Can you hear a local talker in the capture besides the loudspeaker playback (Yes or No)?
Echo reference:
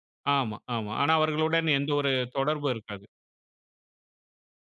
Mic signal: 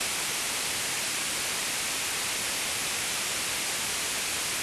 No